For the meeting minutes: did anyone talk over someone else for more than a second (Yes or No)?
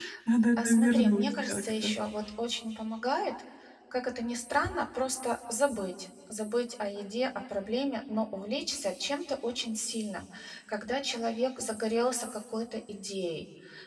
Yes